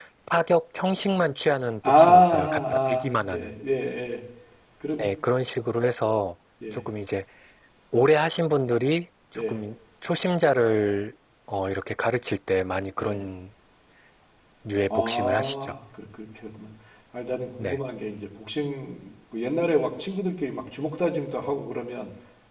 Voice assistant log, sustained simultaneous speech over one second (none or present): present